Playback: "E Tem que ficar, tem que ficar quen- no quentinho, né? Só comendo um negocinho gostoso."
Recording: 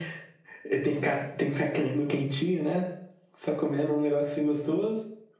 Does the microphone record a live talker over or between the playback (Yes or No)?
No